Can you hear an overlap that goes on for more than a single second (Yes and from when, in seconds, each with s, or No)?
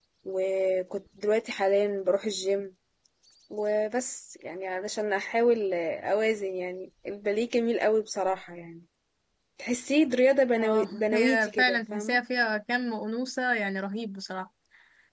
Yes, from 10.6 s